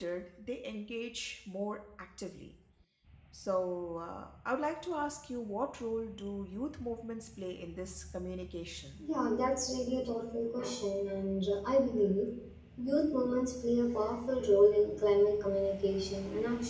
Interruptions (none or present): none